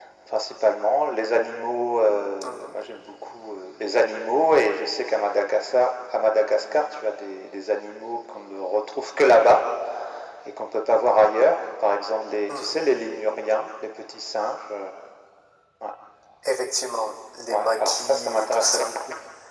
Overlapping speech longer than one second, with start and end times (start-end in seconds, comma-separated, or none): 17.5-18.9